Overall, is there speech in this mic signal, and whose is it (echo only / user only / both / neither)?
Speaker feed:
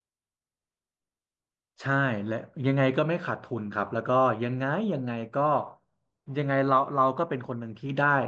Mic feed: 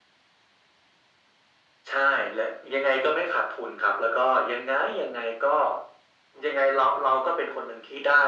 echo only